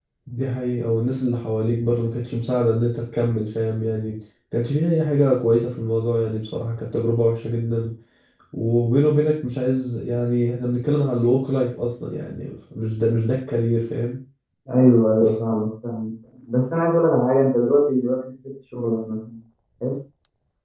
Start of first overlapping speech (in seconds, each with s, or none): none